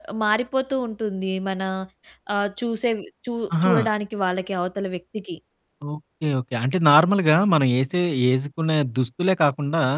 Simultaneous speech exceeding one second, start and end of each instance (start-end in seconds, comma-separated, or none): none